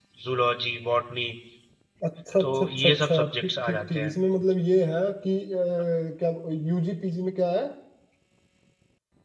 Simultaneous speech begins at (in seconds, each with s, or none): 2.4 s